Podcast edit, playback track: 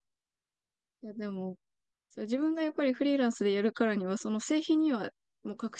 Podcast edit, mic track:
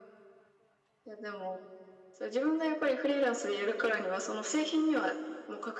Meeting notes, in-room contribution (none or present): none